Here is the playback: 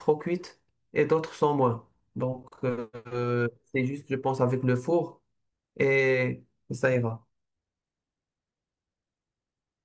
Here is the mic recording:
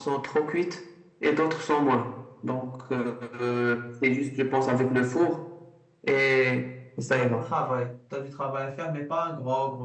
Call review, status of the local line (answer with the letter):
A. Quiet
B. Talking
B